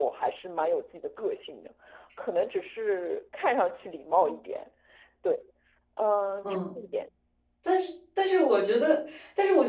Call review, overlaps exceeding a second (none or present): none